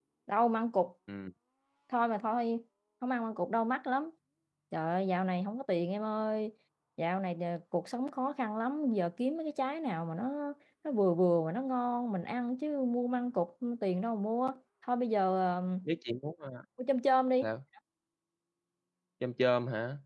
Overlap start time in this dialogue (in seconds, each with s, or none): none